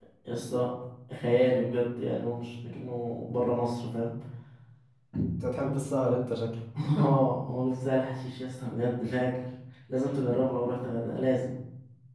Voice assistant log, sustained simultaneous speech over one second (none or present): none